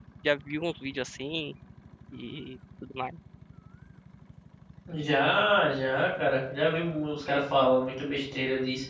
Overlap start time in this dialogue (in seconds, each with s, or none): none